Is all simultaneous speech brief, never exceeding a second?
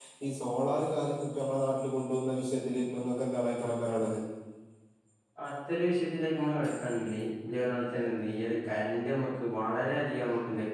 Yes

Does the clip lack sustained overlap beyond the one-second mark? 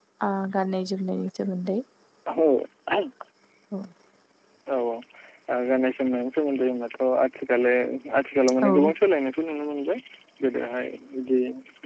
Yes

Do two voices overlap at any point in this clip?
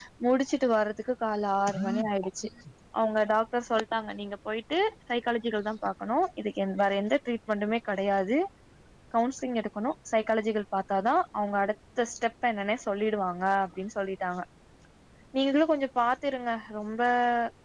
No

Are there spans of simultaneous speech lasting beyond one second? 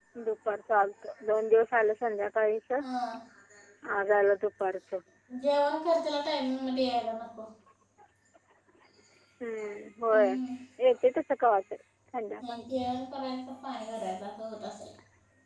No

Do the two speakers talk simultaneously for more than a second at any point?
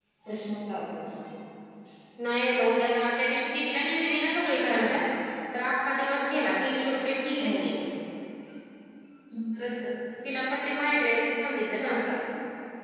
No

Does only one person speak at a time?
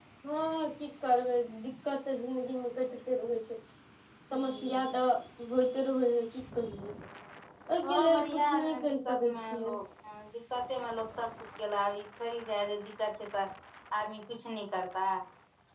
No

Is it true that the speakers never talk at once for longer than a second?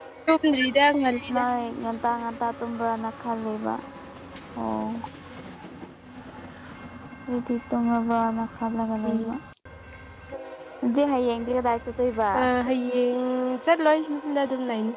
Yes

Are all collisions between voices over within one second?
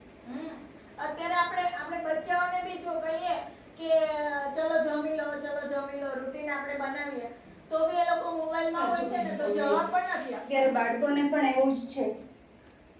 No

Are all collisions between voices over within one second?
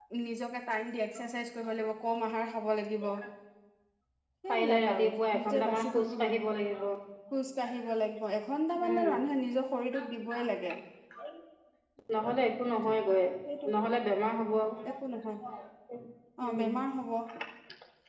No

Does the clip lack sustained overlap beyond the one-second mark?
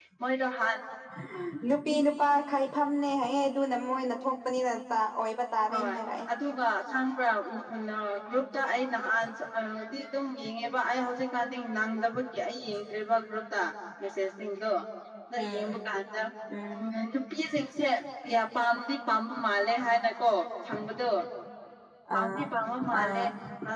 Yes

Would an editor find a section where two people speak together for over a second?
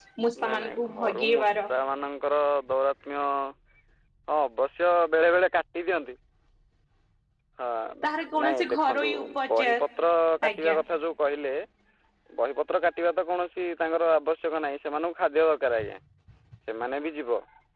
Yes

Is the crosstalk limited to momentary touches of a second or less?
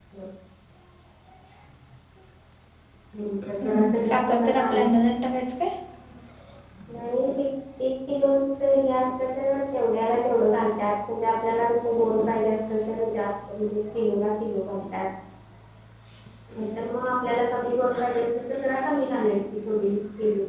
Yes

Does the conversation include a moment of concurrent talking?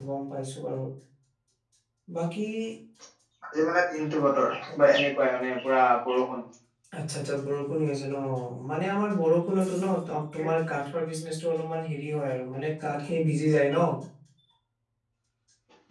No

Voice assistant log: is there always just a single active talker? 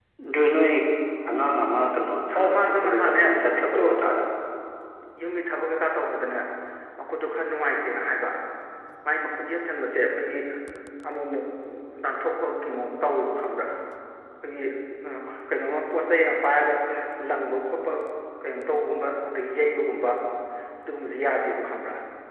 No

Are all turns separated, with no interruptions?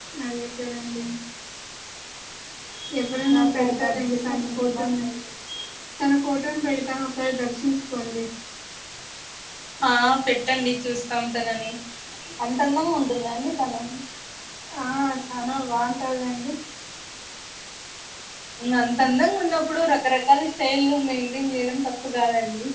No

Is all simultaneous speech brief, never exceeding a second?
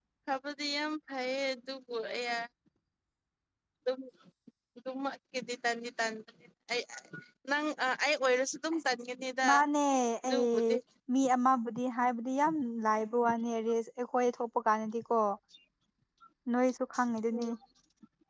Yes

